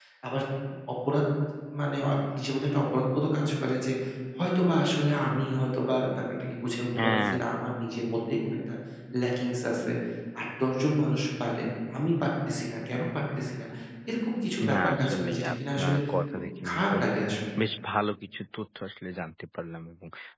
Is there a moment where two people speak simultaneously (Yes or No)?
Yes